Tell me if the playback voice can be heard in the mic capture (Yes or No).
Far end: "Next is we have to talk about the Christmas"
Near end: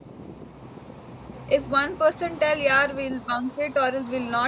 No